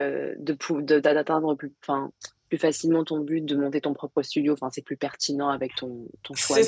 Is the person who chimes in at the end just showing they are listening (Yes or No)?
No